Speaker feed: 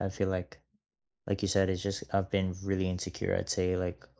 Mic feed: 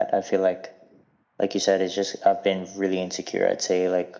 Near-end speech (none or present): none